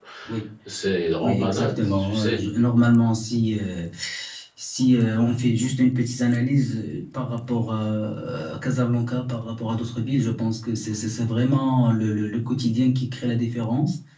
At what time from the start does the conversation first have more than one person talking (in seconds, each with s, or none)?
1.2 s